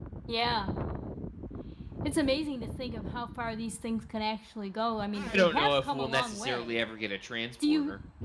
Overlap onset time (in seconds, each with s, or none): 5.1 s